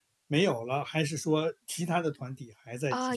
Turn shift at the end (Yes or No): Yes